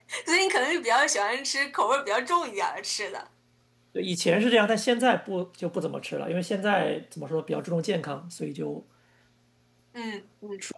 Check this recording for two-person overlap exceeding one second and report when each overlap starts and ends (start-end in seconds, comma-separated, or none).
none